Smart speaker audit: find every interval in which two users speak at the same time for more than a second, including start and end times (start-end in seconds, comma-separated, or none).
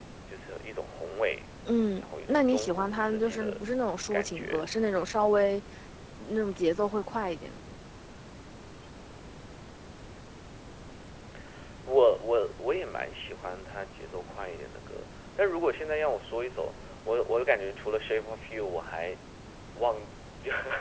2.0-3.6